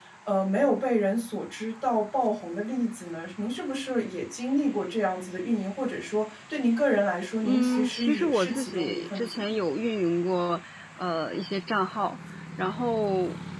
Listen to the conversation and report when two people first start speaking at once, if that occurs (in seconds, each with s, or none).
7.4 s